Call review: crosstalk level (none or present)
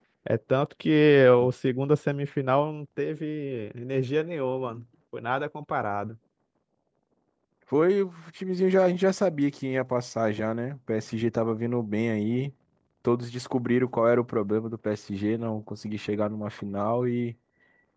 none